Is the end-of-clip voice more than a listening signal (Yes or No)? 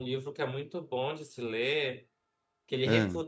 No